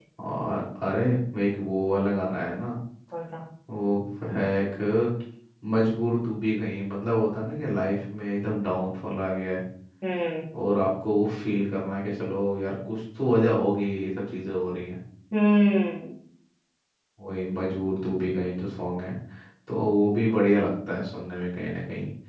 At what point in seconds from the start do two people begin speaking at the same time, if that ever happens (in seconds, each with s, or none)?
none